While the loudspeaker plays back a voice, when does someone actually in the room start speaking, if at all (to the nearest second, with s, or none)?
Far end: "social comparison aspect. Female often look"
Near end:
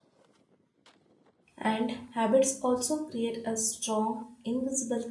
2 s